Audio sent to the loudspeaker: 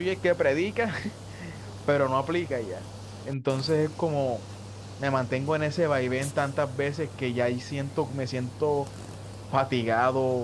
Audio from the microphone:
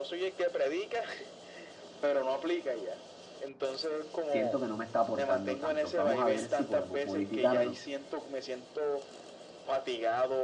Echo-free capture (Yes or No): No